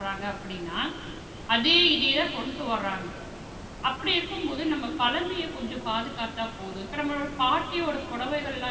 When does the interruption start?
none

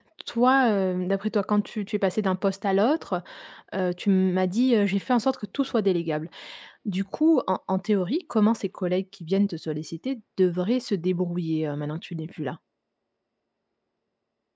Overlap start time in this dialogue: none

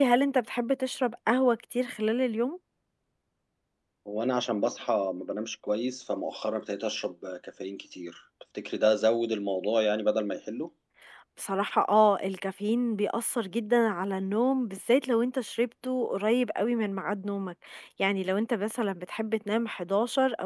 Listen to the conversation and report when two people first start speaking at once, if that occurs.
none

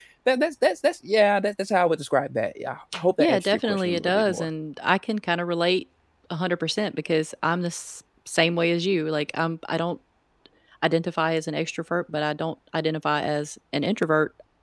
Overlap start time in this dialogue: 3.2 s

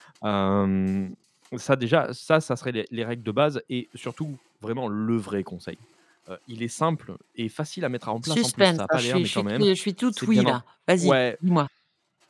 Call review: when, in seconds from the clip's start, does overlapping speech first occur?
8.2 s

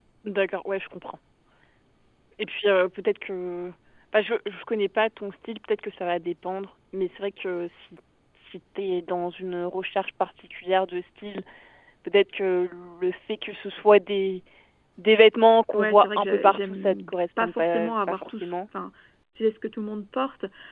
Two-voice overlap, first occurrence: 15.7 s

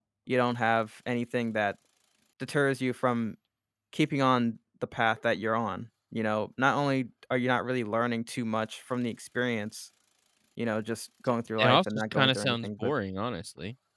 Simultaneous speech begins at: 11.6 s

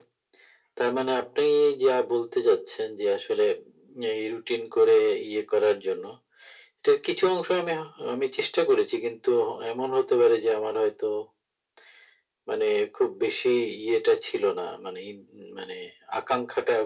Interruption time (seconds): none

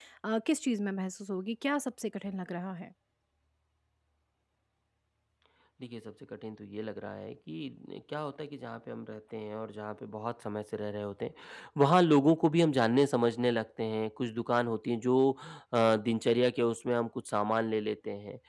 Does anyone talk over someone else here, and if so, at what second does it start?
none

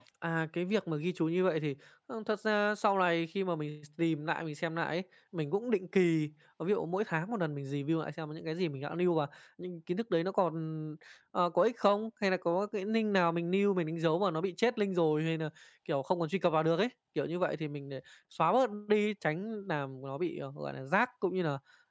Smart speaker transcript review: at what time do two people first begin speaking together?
none

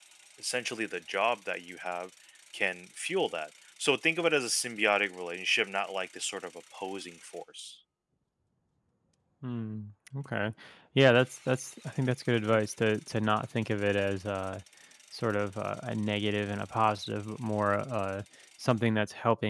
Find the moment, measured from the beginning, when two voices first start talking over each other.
none

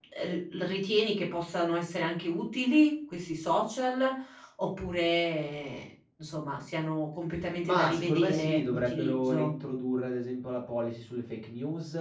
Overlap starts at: 7.6 s

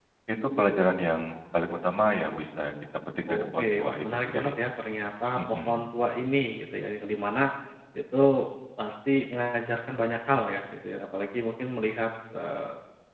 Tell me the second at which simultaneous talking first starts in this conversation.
3.3 s

